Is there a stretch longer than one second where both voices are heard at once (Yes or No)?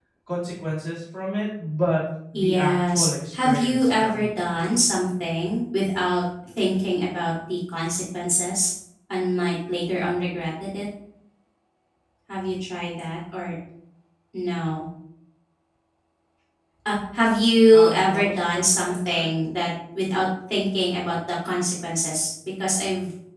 Yes